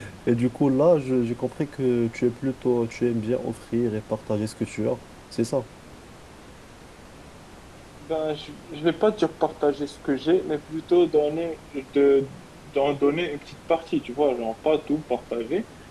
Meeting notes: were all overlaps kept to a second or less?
Yes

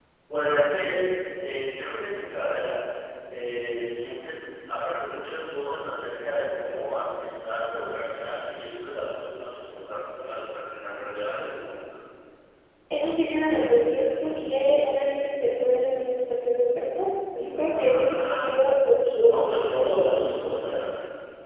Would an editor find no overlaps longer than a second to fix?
No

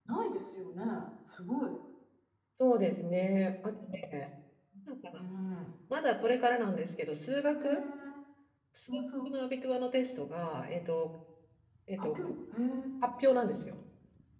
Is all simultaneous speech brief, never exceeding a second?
Yes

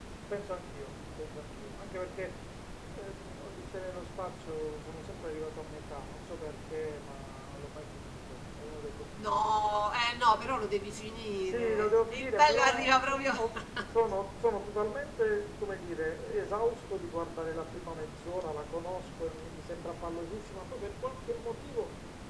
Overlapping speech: Yes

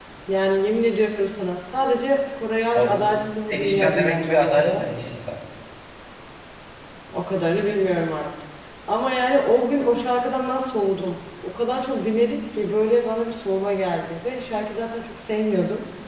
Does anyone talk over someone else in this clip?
Yes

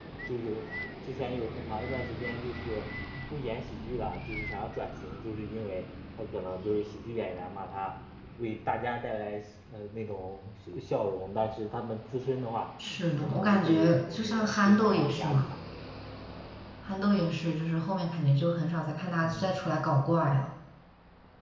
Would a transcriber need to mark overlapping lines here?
Yes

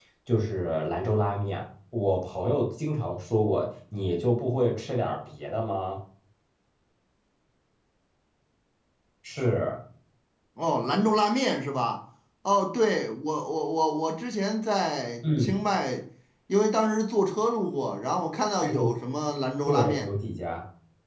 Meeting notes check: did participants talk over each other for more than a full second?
No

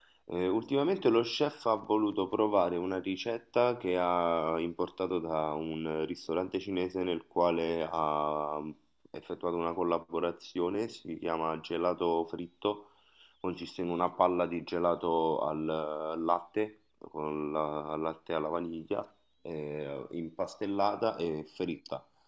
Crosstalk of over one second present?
No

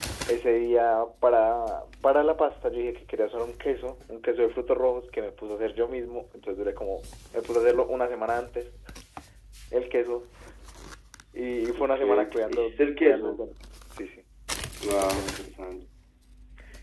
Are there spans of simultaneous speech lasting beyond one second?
Yes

